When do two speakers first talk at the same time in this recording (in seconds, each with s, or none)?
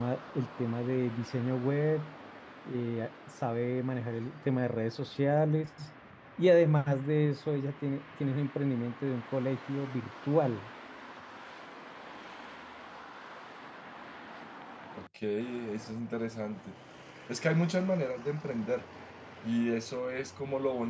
none